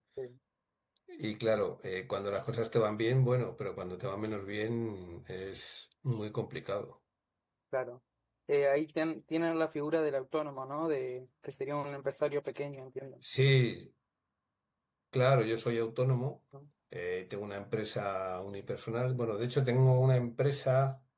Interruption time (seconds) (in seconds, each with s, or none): none